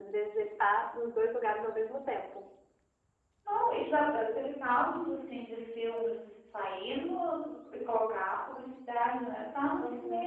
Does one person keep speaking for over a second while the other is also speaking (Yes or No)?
No